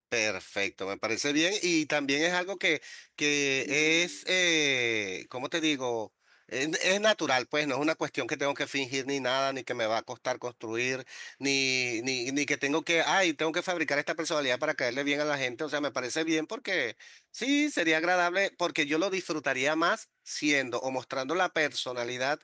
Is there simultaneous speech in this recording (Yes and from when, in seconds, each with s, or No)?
No